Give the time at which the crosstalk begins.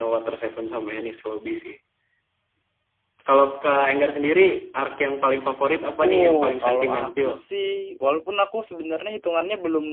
6 s

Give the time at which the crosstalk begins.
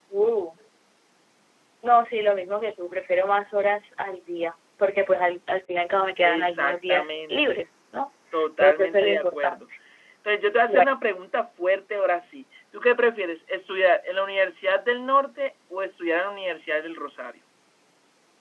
6 s

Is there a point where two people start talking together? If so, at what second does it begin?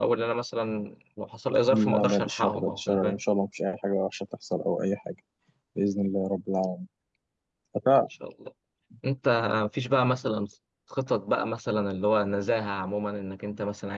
2 s

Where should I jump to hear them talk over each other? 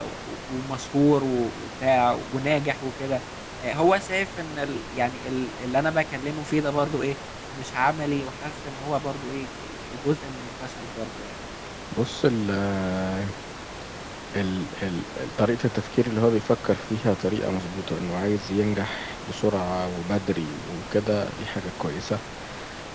none

